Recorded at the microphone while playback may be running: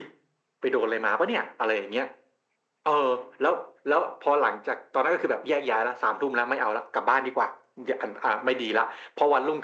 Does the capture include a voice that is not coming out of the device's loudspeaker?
No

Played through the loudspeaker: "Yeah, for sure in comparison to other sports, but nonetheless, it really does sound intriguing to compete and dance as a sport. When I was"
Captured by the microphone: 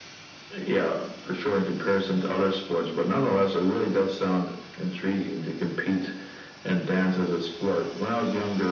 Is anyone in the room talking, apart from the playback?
No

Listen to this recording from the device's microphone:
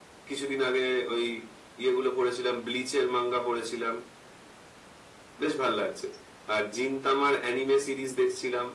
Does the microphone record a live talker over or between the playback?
No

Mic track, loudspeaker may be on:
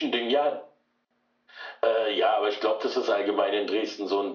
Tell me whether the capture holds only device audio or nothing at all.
Yes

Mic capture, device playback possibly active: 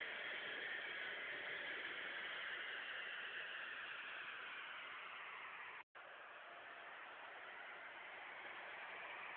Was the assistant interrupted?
No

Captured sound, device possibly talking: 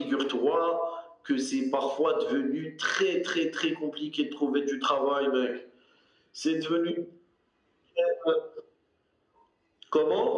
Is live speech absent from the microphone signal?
Yes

